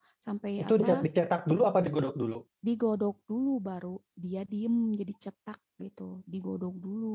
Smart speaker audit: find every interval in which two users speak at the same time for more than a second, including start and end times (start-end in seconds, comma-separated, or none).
none